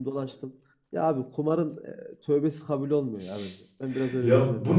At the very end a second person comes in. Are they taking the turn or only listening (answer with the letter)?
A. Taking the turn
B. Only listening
A